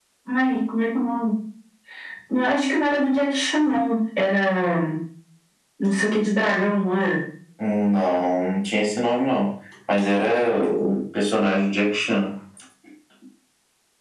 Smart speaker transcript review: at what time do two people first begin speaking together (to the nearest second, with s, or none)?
none